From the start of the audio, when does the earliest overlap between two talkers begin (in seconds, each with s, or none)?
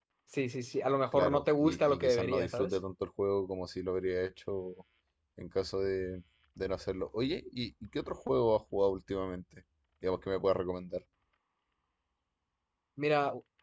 1.1 s